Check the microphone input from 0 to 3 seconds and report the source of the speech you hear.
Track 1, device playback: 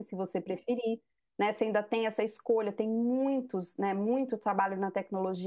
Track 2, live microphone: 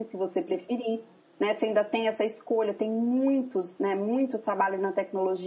echo only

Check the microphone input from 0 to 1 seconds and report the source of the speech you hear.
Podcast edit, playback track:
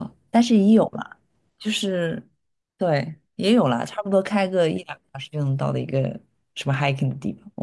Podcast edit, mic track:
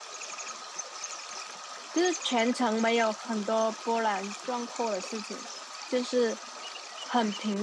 neither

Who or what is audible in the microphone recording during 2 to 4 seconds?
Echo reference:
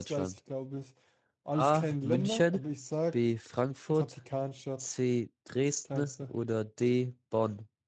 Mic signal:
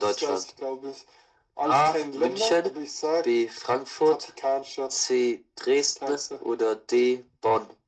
echo only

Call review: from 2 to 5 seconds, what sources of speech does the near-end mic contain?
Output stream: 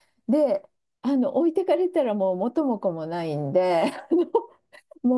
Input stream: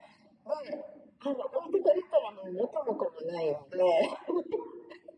echo only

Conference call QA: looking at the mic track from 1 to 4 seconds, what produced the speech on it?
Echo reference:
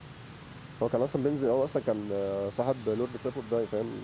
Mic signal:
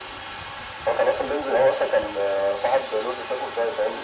echo only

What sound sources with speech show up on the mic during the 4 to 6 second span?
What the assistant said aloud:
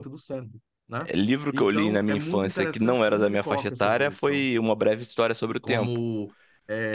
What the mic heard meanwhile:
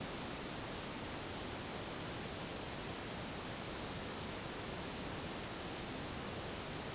neither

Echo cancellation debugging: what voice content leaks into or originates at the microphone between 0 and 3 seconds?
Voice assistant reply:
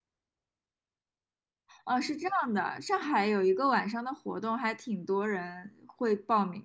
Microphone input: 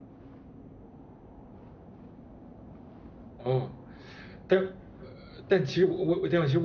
neither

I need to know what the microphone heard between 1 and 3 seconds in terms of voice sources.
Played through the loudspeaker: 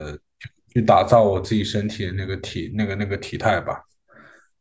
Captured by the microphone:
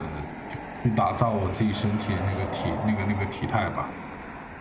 echo only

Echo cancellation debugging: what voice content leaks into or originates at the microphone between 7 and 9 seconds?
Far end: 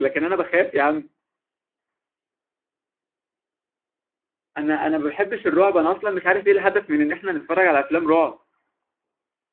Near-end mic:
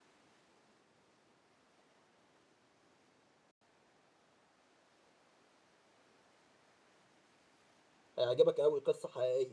user only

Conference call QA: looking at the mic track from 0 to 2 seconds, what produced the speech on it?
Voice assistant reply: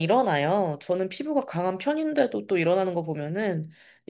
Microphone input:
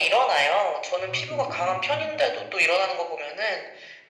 both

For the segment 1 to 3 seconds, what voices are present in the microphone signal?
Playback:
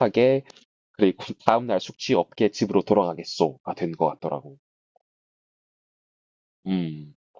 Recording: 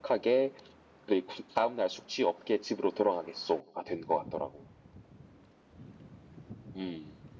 echo only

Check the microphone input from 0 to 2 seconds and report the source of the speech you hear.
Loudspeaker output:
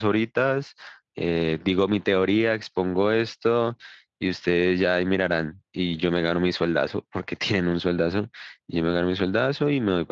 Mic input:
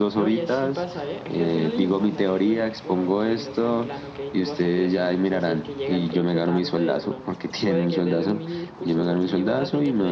both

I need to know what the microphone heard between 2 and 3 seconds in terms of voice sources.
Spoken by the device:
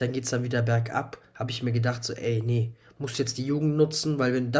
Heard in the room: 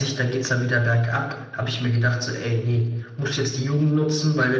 echo only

